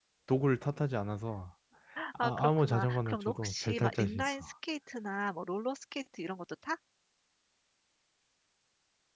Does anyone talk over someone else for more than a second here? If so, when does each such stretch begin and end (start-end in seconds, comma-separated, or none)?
2.2-4.5